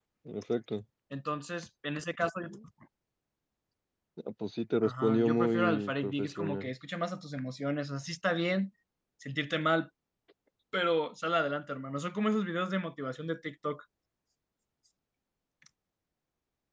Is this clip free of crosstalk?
No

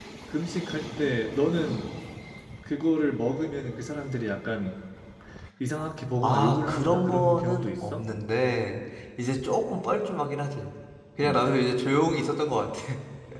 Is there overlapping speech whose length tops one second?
Yes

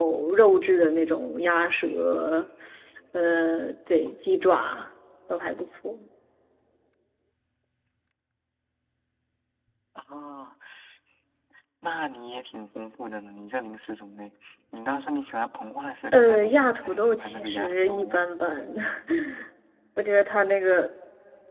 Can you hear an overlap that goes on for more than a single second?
Yes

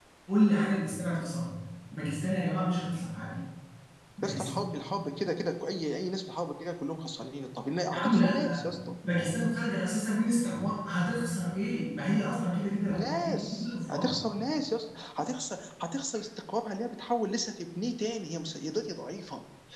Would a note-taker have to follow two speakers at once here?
Yes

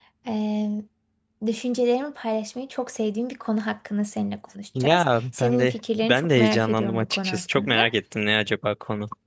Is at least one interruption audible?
Yes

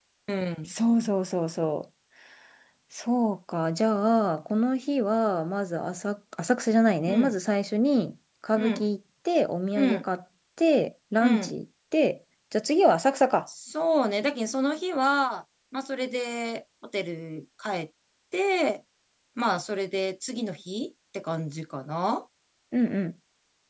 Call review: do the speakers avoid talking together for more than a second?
Yes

